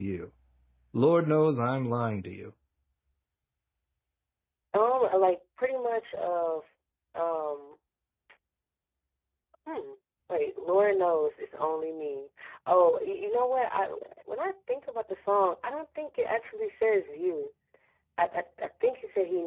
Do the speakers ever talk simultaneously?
No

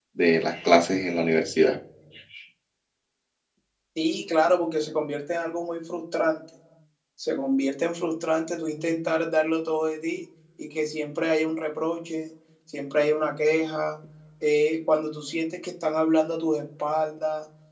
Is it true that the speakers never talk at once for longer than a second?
Yes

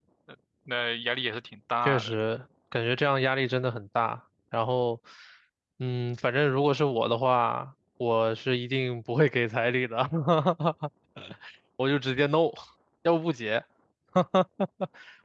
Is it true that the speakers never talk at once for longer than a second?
Yes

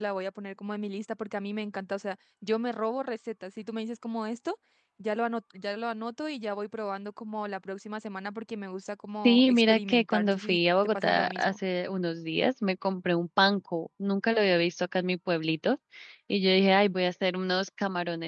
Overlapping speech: Yes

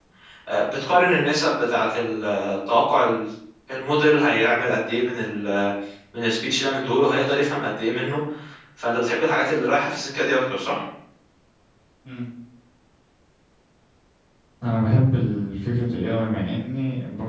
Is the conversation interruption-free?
Yes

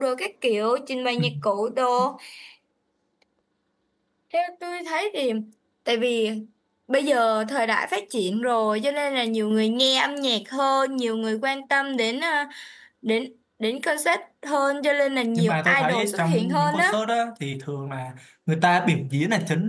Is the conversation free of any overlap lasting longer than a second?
No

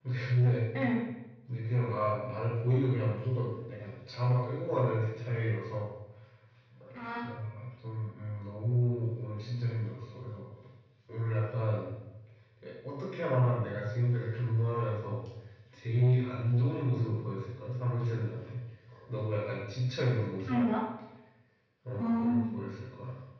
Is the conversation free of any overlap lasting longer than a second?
Yes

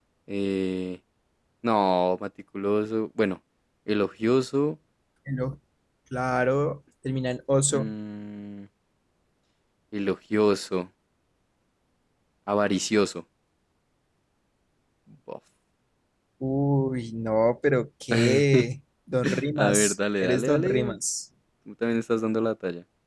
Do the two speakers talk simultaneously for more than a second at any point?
Yes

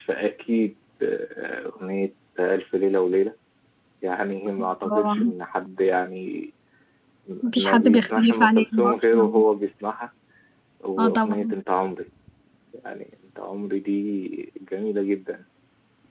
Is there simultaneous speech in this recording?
Yes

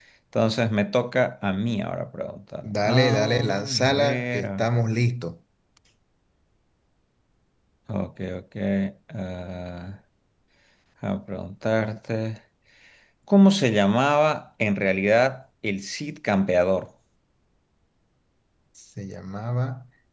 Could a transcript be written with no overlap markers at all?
No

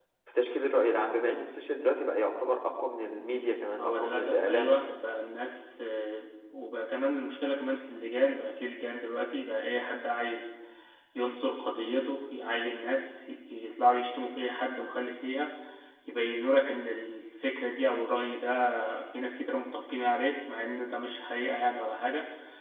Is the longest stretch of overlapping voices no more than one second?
No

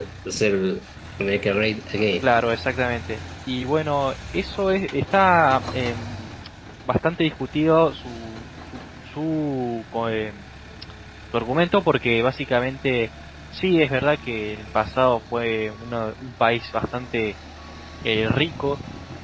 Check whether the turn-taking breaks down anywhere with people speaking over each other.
No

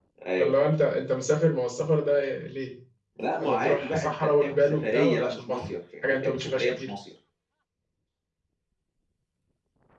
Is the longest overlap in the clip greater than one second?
Yes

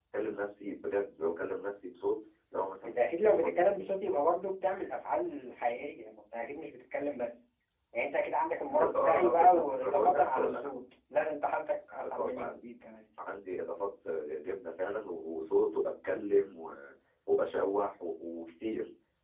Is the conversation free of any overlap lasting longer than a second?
No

